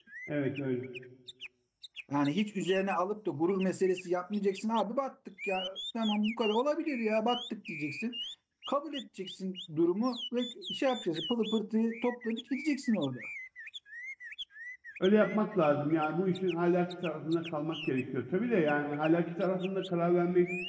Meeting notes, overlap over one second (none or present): none